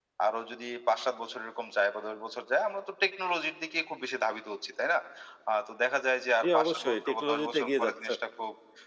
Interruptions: present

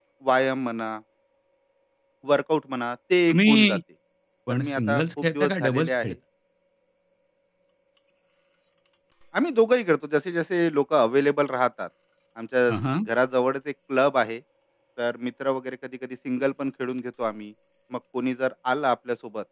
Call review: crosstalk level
present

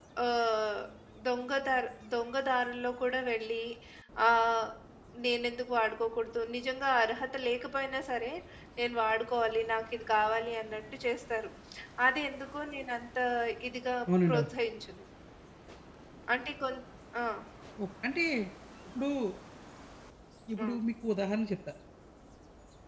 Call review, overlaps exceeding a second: none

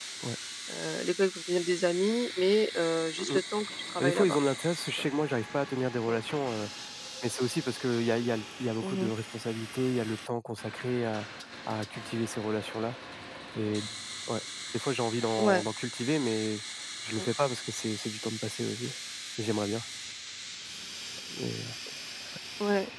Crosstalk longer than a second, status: none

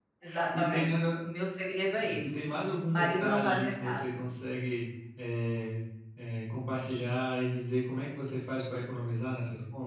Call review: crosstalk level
present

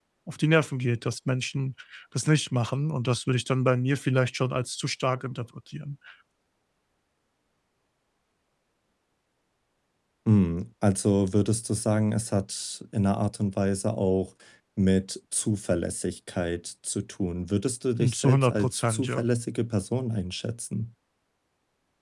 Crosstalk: present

